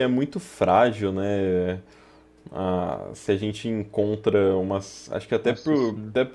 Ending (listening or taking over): listening